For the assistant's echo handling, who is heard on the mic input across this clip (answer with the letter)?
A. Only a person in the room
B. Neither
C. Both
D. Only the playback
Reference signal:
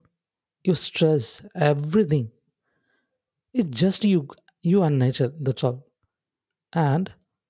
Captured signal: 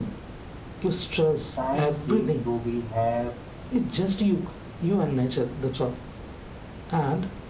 C